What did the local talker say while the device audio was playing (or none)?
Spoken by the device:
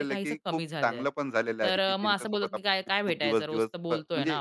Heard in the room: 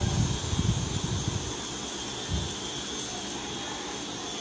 none